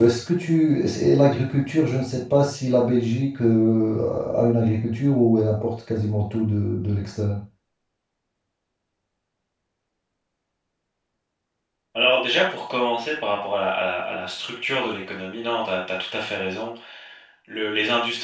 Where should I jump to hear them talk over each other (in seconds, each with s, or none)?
none